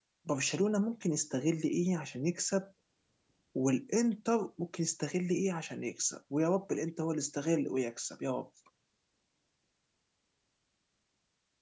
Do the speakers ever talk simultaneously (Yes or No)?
No